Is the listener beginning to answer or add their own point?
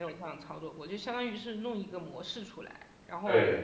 No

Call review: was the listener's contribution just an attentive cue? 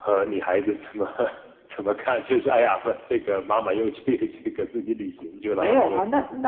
No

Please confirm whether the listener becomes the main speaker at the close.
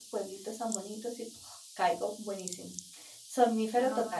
Yes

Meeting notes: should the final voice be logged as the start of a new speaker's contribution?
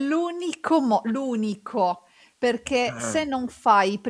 No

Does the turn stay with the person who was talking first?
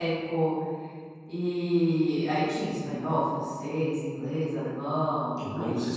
No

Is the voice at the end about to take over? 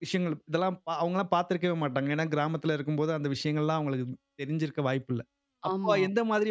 No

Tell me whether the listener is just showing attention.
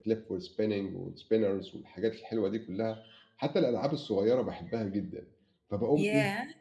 Yes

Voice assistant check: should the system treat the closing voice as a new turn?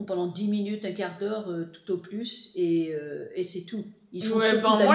Yes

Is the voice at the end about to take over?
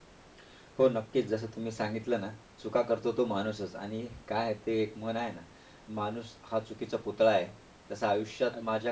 No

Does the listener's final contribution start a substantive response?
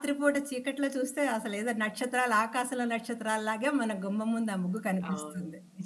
Yes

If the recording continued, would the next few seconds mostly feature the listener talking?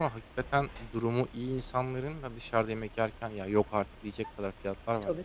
Yes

